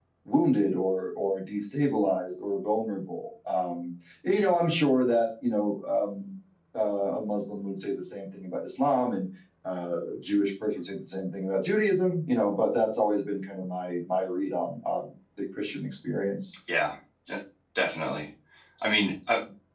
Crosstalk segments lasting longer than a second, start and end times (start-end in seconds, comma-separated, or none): none